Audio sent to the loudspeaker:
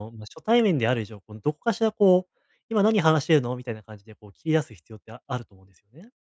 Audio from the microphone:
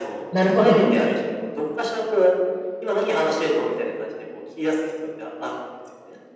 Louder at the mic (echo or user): user